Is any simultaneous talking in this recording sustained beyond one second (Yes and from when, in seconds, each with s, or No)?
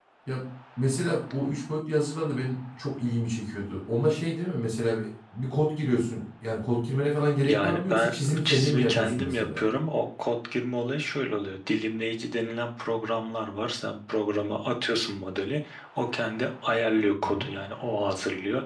Yes, from 7.4 s